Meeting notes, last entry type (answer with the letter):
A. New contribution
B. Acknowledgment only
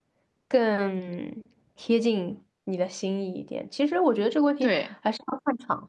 B